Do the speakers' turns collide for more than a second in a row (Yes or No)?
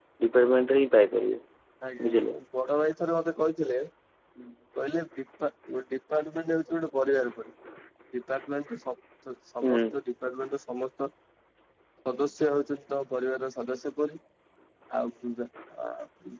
No